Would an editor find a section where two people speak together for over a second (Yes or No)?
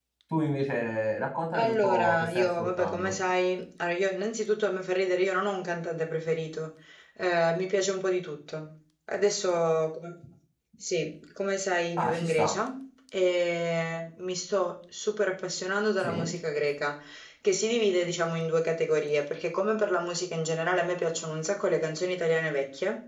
Yes